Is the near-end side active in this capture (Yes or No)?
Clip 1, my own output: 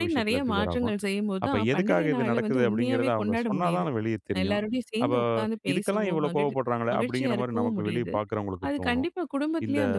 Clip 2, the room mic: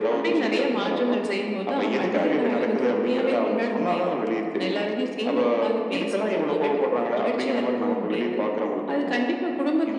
No